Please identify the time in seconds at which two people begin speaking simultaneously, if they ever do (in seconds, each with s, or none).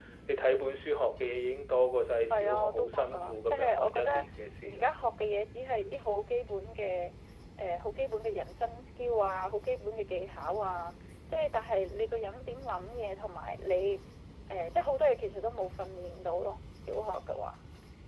2.3 s